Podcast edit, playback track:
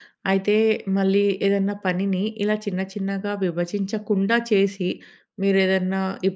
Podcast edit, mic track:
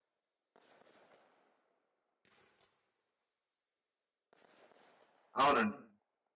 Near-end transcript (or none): అవునండి.